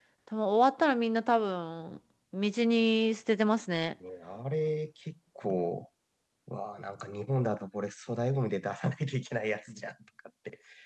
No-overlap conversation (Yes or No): Yes